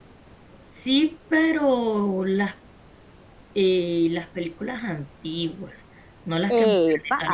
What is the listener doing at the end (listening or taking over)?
taking over